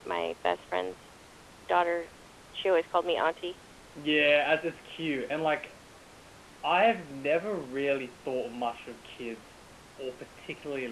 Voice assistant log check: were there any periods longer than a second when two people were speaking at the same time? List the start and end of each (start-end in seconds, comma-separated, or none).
none